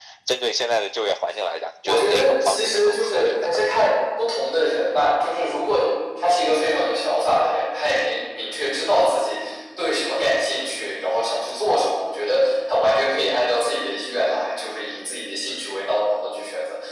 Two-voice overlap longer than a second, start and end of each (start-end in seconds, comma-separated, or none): 1.8-3.6